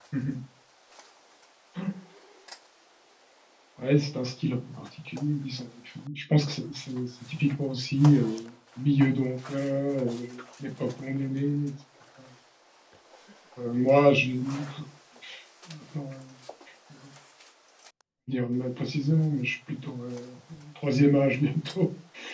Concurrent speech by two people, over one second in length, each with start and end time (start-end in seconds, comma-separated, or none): none